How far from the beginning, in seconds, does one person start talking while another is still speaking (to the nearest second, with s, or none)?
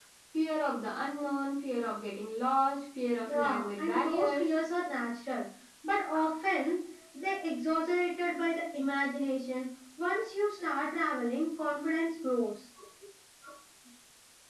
3 s